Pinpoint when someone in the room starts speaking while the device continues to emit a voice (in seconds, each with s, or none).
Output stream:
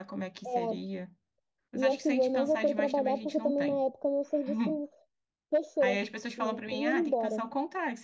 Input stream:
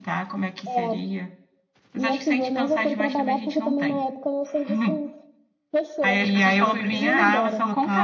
6.2 s